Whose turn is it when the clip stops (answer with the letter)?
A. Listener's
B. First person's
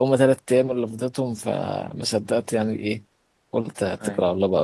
B